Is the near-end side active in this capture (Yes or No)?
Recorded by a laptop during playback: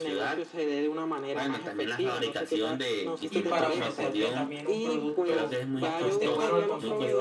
Yes